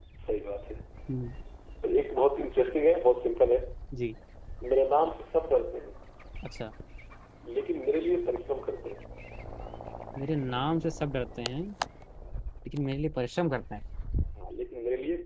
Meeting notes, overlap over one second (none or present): none